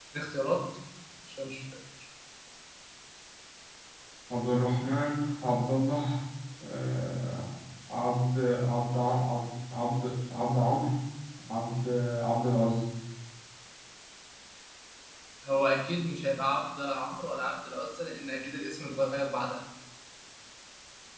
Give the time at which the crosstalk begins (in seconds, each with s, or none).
none